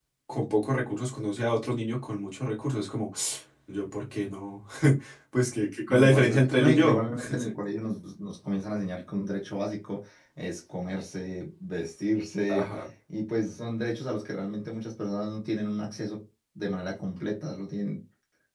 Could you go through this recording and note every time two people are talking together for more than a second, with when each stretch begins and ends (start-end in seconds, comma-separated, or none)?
5.9-7.5